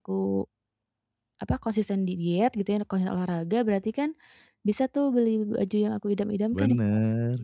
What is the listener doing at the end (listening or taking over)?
taking over